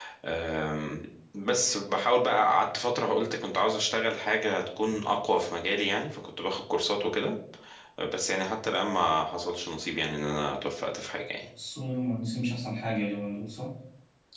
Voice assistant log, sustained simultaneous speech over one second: none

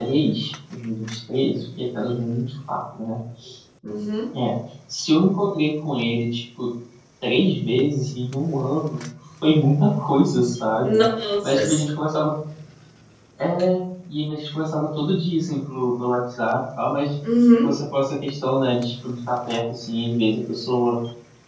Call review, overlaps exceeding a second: none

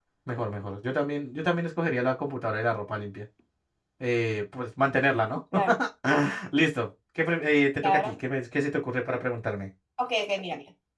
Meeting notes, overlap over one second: none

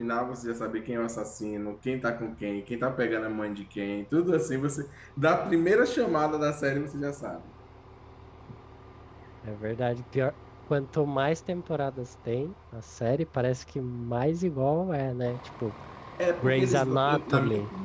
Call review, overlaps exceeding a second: present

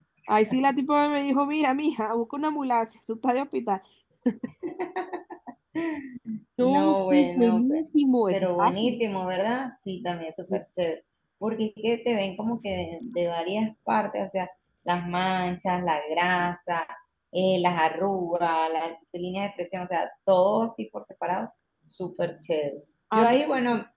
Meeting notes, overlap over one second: present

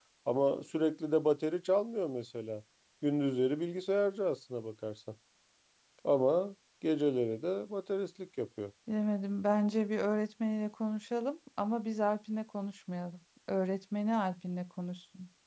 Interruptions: none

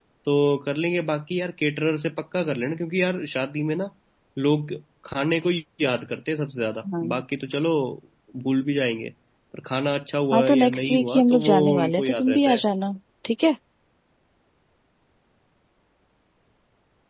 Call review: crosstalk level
present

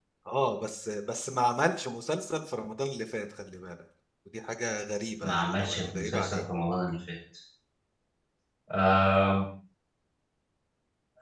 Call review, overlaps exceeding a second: present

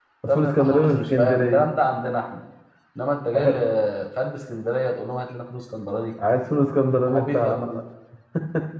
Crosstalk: present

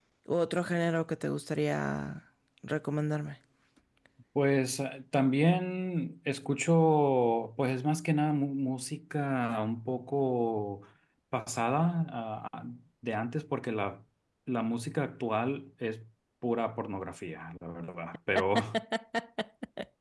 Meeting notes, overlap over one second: none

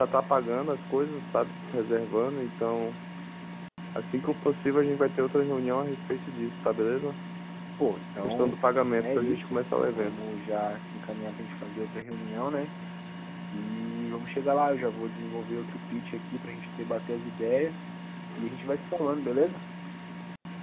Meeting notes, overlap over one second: present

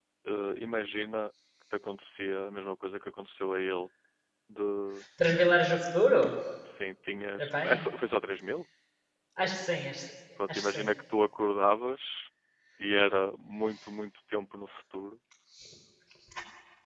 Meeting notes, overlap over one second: none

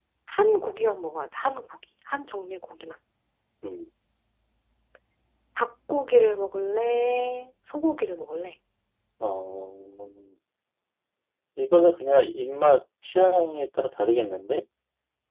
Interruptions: none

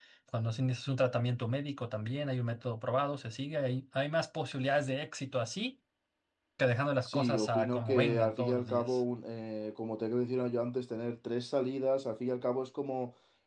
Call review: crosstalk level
present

